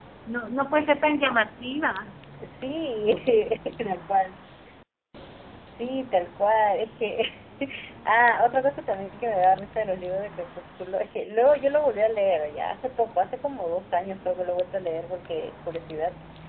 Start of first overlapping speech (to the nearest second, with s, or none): none